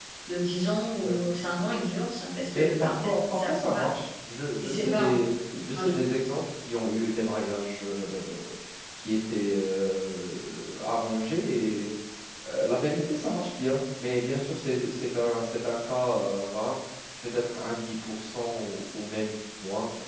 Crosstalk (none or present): present